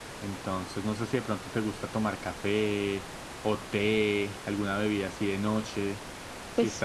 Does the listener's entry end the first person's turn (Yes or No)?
Yes